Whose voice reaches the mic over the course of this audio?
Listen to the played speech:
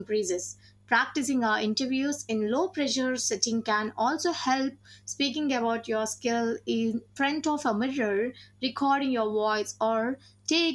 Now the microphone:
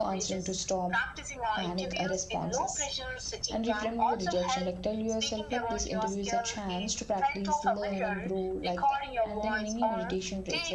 both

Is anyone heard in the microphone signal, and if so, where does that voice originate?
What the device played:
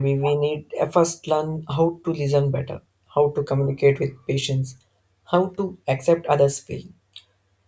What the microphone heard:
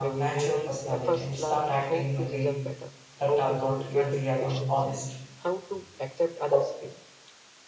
both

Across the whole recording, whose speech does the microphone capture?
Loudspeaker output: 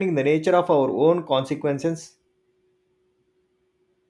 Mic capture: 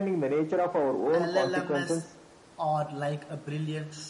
both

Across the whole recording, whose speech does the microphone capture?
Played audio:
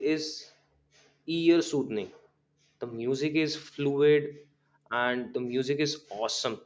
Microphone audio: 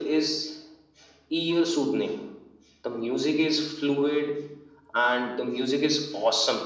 echo only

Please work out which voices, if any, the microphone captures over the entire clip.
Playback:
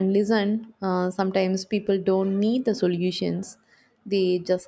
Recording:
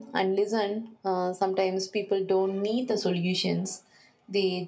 echo only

